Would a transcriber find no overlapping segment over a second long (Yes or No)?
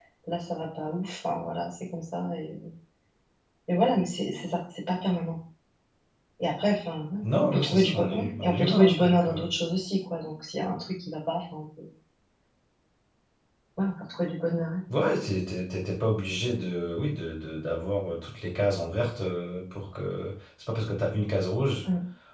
No